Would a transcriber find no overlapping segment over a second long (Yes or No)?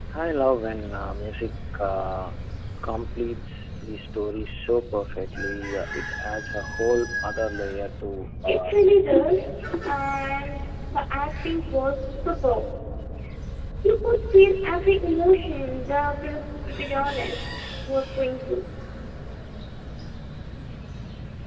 No